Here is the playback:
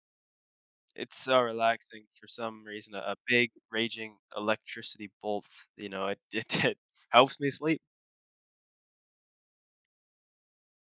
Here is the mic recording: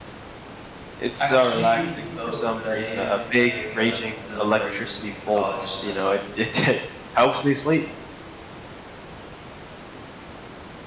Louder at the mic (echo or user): echo